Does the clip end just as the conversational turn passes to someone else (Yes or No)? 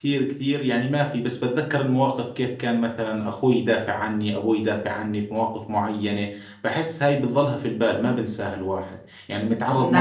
No